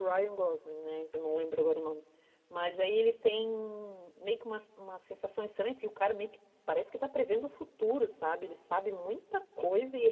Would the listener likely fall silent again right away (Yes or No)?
Yes